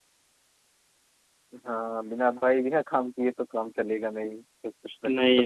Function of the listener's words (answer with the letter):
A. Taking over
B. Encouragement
A